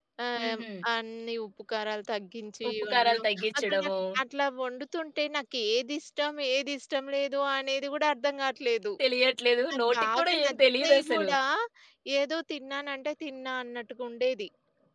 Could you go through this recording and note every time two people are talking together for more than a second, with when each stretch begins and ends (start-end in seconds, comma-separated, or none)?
2.7-3.9, 9.7-11.3